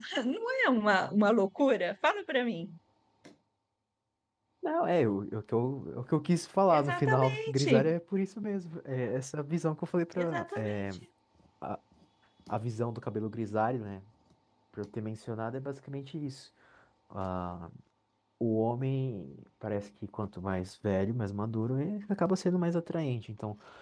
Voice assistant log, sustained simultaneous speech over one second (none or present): present